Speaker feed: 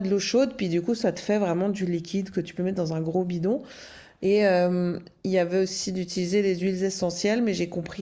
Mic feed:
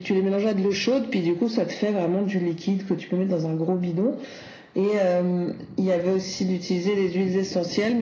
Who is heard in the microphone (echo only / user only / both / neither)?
echo only